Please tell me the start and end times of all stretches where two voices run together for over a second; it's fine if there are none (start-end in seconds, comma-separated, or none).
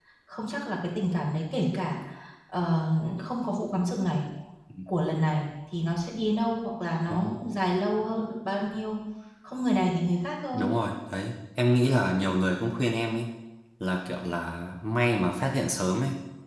none